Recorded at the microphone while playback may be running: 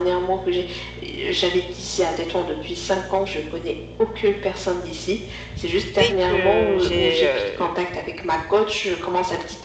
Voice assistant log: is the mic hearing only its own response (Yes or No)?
No